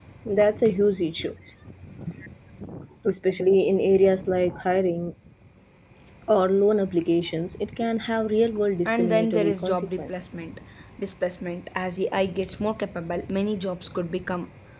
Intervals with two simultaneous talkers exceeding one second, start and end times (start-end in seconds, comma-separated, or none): 8.8-10.2